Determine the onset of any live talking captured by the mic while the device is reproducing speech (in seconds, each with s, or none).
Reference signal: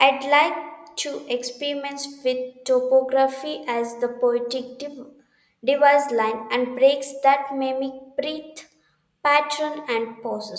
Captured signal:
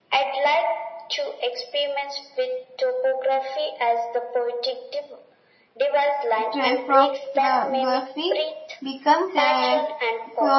6.5 s